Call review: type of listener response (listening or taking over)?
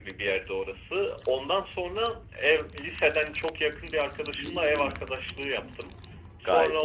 listening